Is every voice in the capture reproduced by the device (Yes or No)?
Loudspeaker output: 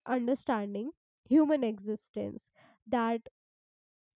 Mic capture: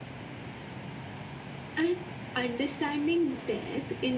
No